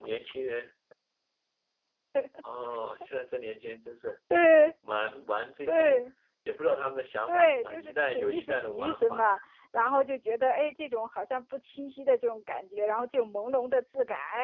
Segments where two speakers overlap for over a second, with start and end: 7.3-9.2

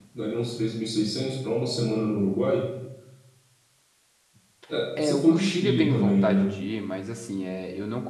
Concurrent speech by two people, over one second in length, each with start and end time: 5.0-6.5

